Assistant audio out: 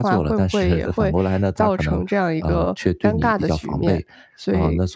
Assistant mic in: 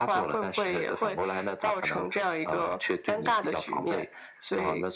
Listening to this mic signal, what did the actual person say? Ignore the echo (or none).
none